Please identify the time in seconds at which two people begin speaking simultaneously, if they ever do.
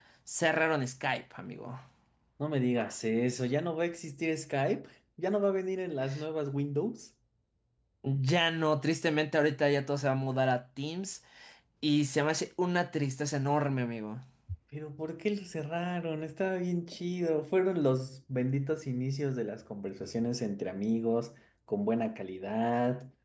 none

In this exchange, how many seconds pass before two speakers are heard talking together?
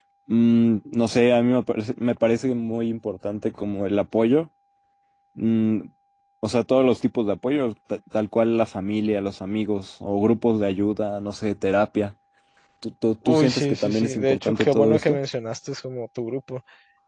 13.2 s

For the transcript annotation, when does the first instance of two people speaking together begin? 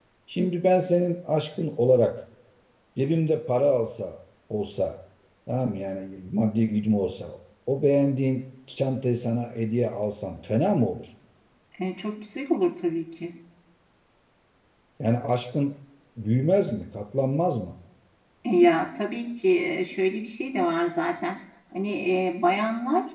none

